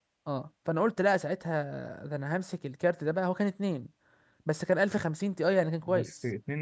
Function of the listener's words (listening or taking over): taking over